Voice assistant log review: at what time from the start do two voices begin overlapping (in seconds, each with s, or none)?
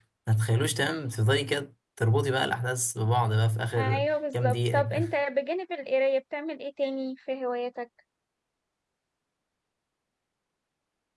3.8 s